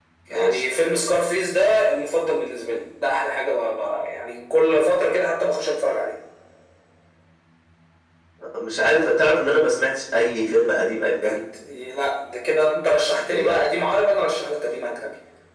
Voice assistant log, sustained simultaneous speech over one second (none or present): none